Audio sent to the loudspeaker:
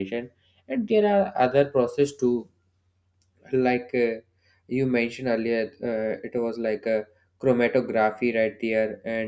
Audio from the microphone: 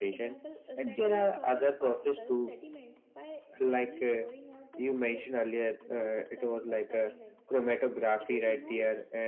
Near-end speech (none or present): present